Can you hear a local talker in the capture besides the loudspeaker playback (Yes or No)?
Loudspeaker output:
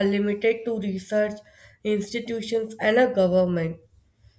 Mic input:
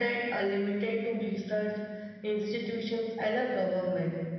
No